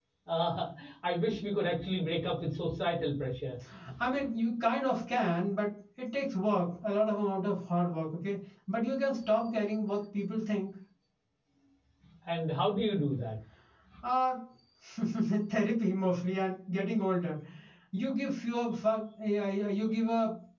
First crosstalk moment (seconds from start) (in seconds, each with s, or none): none